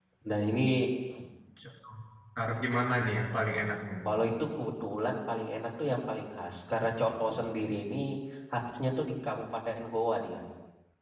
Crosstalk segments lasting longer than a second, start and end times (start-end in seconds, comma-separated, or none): none